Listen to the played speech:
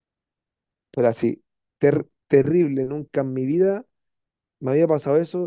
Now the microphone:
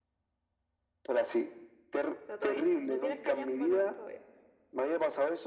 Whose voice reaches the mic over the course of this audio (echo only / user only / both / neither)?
both